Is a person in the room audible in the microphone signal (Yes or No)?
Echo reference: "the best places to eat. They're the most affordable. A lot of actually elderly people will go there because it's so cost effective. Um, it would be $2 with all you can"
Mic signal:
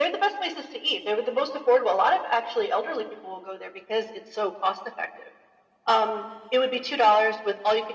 No